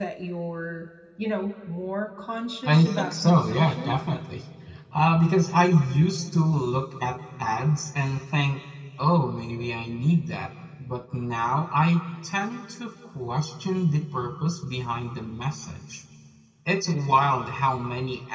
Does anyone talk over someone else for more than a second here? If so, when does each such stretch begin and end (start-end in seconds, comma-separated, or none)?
2.6-4.0